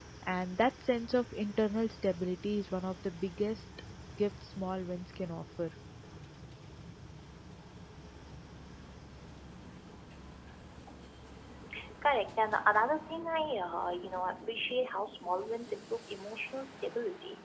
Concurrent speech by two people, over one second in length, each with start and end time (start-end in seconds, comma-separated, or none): none